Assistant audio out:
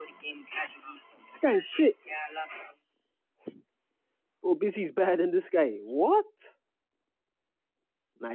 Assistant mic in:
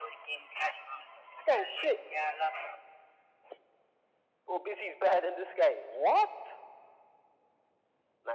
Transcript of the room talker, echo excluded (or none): none